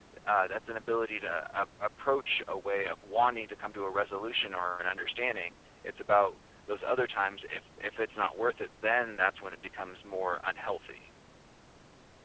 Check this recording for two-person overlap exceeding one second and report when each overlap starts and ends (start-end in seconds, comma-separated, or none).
none